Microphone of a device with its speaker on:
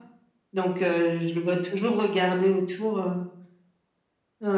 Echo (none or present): present